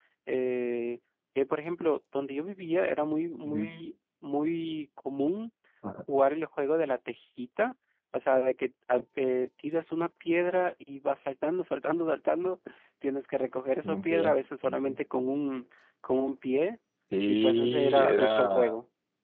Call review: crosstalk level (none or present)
present